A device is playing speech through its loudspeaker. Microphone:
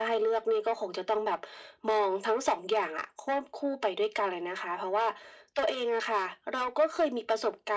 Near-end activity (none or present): none